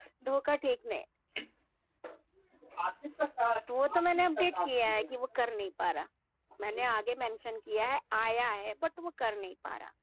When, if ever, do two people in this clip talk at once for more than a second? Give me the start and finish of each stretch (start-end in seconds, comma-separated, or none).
3.9-5.1